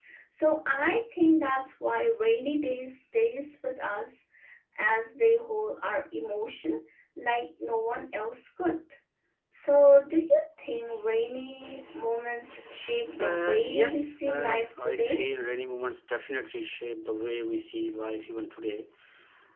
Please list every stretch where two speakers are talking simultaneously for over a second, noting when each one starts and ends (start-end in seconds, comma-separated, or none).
13.2-15.2